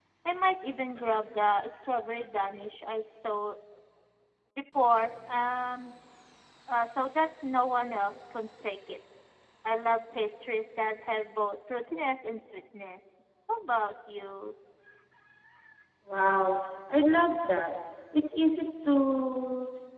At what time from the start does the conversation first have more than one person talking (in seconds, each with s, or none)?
none